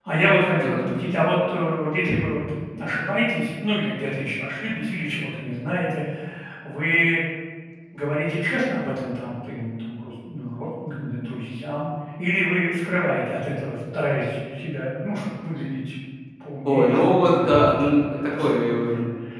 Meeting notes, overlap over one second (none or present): present